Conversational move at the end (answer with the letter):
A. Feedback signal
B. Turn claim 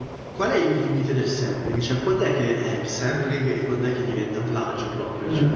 B